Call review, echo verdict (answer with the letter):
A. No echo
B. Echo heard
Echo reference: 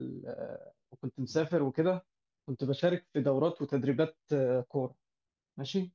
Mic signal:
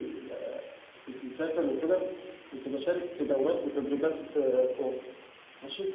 B